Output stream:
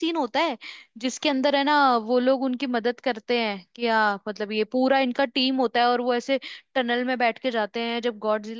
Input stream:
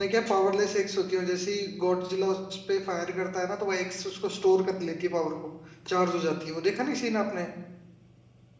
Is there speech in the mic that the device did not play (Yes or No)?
Yes